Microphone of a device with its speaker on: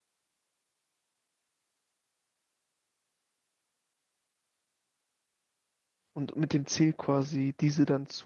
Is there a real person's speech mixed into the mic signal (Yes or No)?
Yes